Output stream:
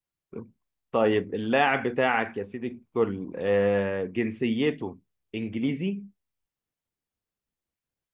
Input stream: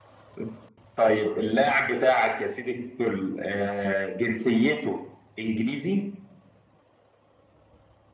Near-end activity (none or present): none